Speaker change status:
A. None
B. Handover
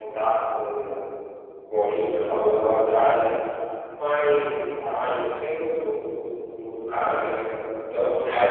A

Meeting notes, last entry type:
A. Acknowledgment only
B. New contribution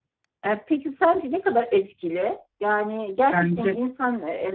A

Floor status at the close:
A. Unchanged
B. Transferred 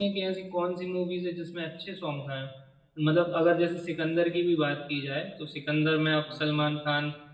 A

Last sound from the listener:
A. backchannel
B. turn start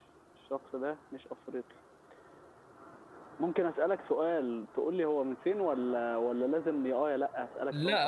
B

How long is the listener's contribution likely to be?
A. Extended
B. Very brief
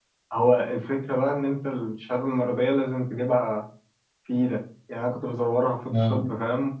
B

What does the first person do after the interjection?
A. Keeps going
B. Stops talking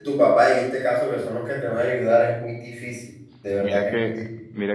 B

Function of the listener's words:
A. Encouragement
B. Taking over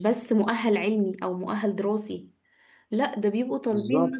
A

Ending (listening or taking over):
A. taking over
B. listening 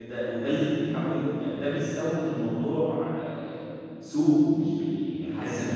A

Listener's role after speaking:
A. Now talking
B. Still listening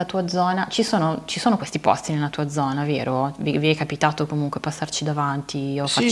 A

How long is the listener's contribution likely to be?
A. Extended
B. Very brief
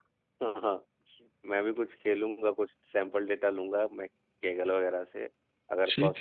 B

